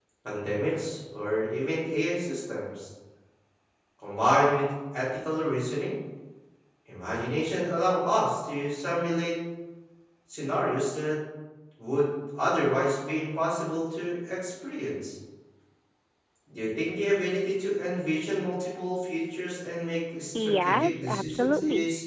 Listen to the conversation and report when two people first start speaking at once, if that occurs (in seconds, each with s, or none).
20.3 s